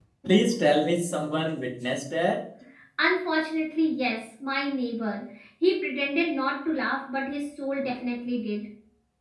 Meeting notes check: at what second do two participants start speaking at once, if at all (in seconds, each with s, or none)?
none